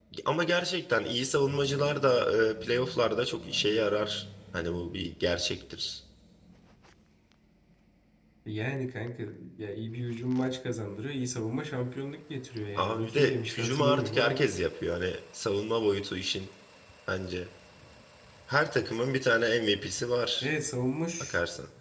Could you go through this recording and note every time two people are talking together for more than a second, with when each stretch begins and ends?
12.8-14.4

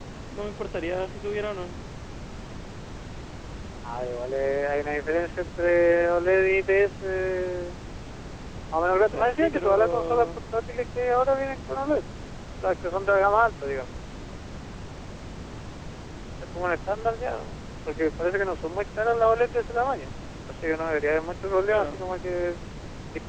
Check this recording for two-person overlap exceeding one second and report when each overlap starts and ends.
8.9-10.3

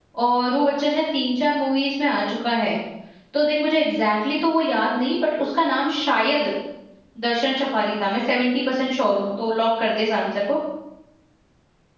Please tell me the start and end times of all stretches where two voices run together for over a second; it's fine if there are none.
none

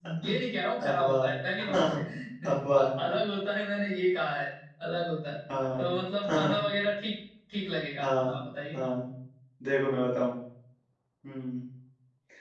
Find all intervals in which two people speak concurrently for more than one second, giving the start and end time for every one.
none

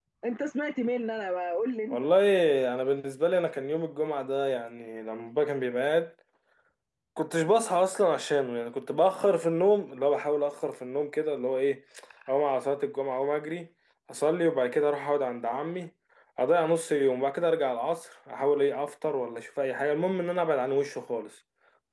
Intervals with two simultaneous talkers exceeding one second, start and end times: none

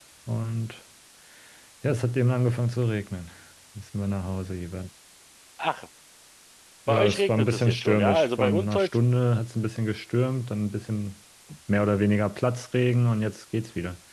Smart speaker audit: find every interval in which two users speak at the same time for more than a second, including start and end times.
6.9-9.0

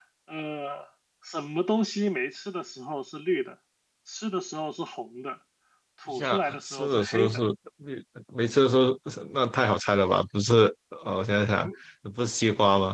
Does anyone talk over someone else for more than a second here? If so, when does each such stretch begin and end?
6.1-7.4

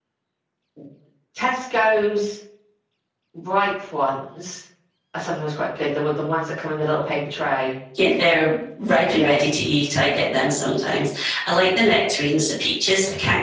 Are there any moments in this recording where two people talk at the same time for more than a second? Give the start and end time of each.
none

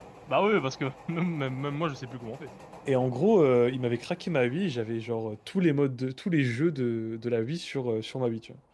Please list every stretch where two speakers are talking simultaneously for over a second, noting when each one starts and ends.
none

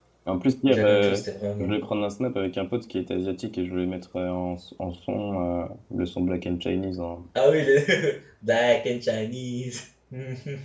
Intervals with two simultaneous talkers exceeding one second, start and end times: none

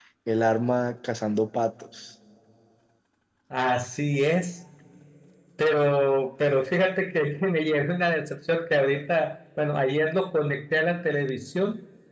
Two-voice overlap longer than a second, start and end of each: none

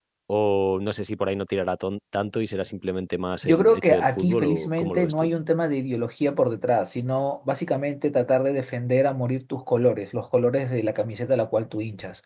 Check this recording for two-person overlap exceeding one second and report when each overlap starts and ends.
3.4-5.3

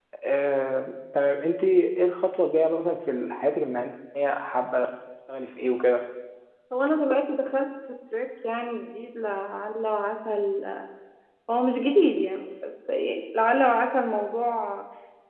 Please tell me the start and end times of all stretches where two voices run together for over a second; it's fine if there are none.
none

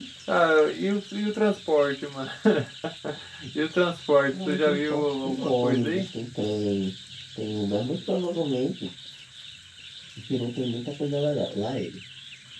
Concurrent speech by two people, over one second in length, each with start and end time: 4.3-6.1

